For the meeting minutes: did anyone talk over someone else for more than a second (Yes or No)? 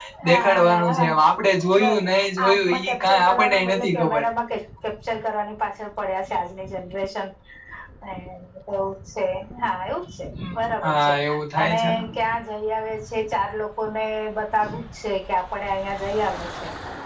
Yes